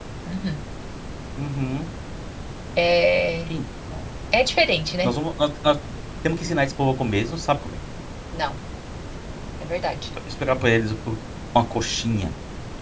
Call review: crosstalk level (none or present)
none